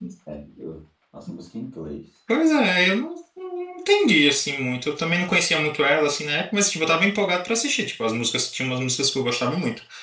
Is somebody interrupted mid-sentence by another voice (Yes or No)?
No